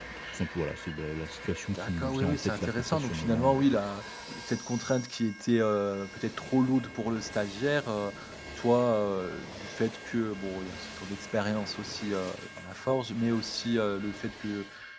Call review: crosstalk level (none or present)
present